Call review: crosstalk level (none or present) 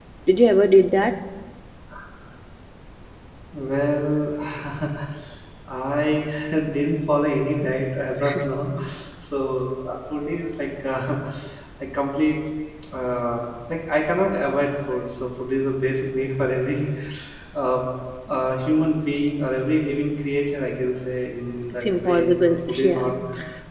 present